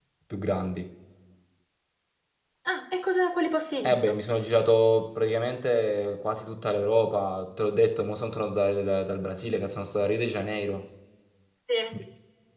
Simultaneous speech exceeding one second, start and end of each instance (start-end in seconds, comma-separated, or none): none